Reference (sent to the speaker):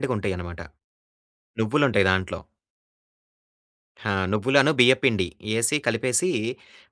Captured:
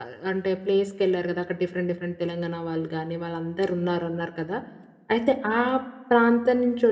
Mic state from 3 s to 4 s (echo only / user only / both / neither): user only